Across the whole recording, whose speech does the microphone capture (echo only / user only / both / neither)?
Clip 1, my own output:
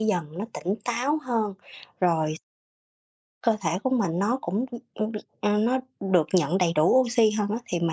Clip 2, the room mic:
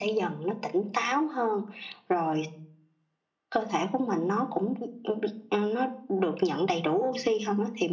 echo only